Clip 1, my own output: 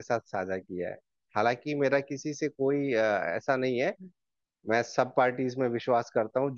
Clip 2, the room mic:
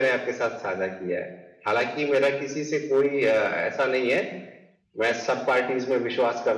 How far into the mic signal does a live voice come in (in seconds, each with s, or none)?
none